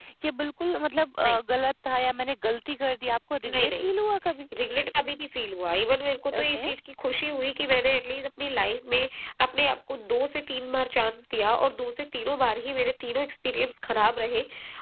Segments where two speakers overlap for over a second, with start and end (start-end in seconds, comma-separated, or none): none